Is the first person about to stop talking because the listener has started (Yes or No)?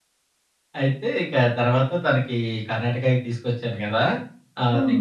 No